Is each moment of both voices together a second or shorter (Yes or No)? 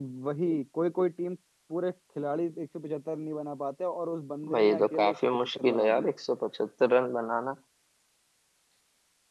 No